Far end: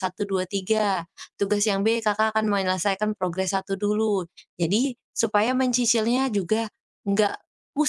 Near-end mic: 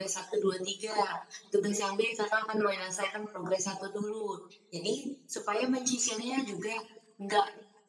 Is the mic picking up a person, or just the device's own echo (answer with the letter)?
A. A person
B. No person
B